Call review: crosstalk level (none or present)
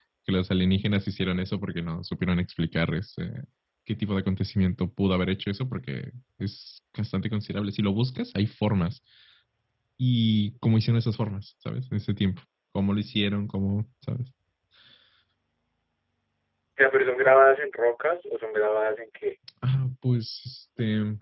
none